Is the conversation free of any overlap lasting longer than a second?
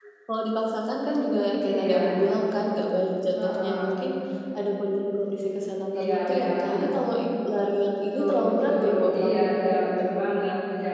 No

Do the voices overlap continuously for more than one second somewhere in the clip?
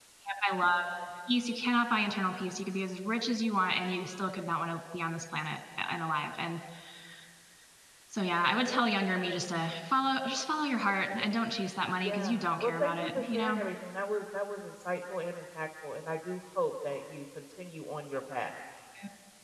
Yes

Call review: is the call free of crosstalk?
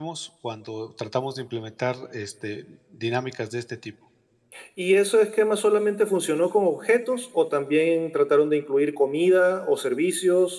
Yes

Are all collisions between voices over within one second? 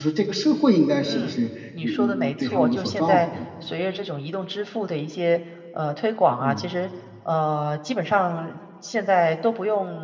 No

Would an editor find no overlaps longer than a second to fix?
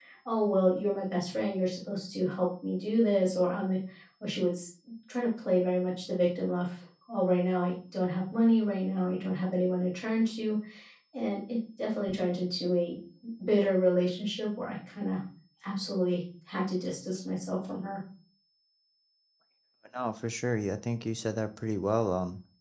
Yes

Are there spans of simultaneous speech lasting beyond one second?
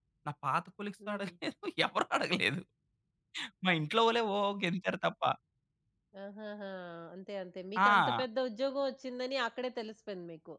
No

